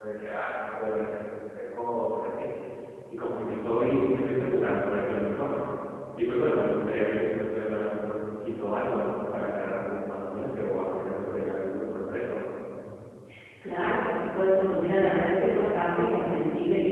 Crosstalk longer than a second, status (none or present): none